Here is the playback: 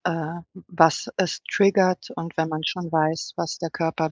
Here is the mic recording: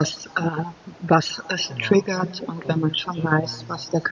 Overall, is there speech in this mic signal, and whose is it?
both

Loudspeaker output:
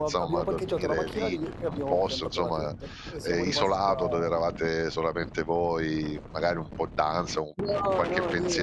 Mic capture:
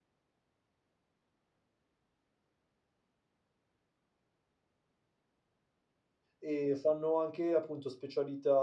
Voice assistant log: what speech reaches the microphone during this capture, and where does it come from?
user only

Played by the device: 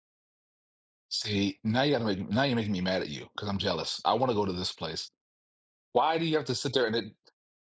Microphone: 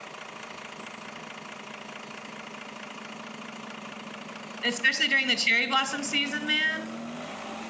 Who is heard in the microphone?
user only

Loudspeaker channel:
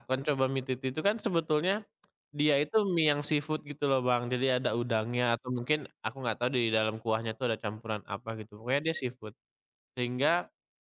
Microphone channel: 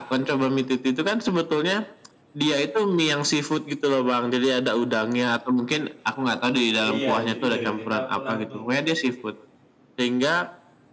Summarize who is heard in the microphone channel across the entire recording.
both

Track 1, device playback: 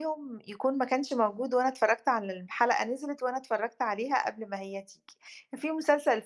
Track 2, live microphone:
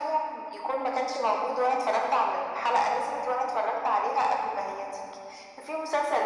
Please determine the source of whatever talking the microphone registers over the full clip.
echo only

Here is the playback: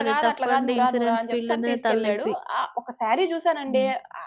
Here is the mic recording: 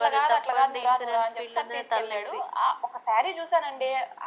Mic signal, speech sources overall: echo only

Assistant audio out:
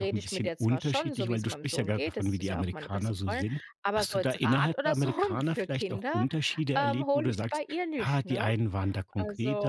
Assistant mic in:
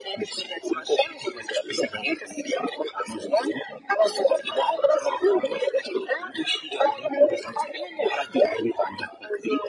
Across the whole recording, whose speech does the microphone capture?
echo only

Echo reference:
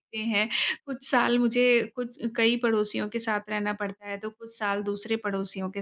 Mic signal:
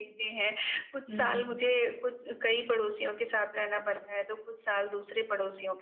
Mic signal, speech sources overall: both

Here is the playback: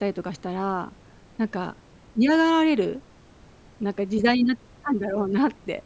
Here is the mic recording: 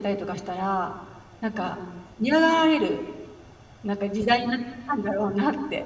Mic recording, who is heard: both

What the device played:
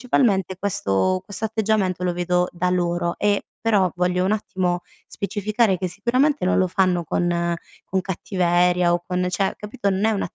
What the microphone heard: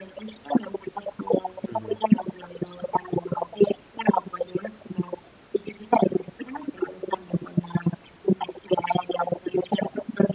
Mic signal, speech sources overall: both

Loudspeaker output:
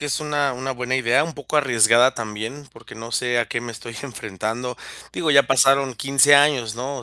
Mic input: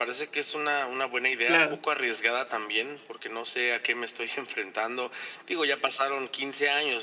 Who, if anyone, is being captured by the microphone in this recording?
both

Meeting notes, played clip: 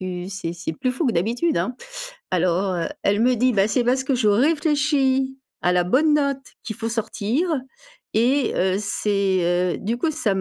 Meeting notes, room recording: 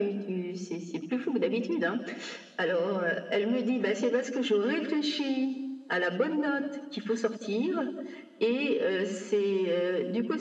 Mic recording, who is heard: echo only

